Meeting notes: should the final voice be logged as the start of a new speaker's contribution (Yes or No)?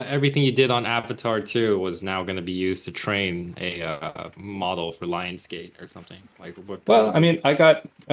Yes